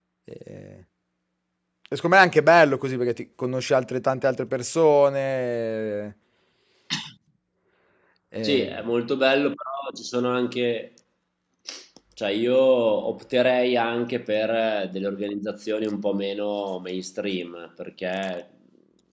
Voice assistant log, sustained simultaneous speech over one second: none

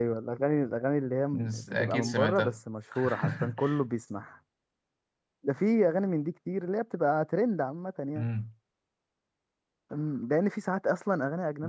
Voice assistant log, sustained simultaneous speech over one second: present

